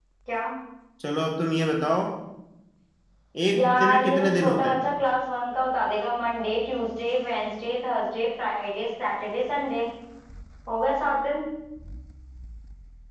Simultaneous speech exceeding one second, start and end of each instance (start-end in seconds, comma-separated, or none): 3.5-4.8